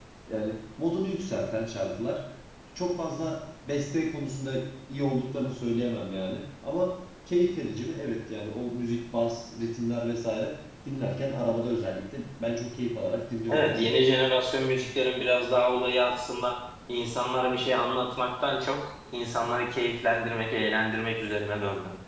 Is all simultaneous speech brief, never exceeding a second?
Yes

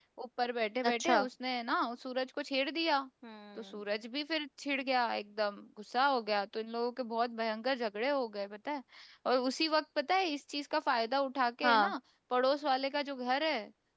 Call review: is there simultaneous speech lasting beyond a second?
No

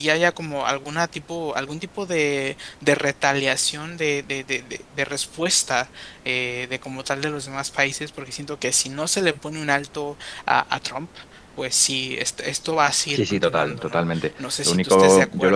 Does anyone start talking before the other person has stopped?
Yes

